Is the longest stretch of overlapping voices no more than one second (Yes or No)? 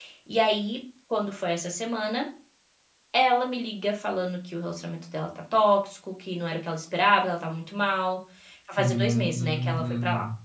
No